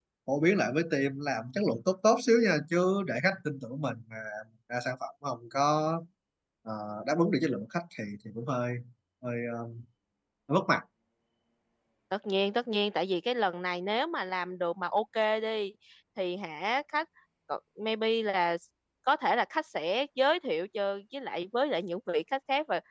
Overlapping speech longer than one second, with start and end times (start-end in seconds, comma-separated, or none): none